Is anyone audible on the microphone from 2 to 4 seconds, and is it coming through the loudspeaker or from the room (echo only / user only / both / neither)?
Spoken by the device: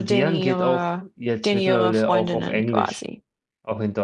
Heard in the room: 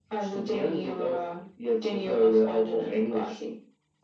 echo only